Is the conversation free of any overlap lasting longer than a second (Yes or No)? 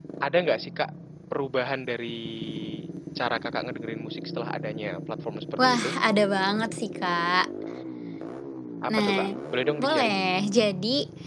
Yes